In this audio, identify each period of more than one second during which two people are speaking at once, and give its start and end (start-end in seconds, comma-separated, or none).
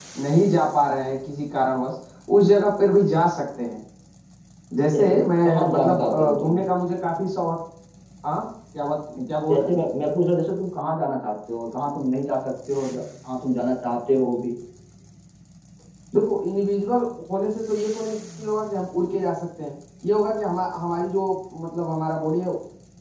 4.9-6.6